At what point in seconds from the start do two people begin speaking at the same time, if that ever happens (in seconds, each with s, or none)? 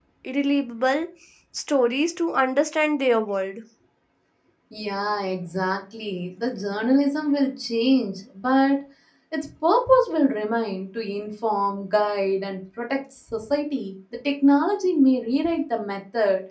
none